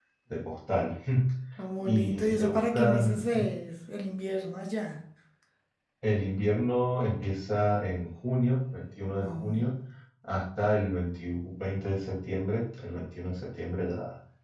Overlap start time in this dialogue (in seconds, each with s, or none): 1.9 s